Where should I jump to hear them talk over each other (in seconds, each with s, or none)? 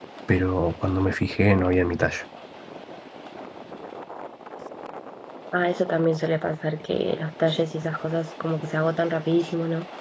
none